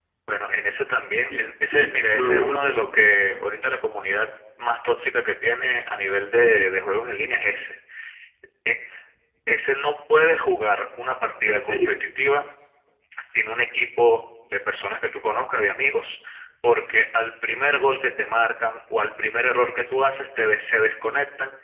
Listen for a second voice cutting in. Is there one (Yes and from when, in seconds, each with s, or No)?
Yes, from 1.3 s